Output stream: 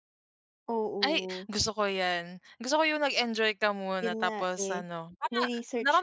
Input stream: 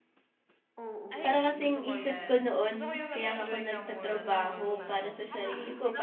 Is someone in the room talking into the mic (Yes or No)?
Yes